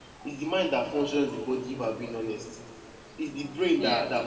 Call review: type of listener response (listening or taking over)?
listening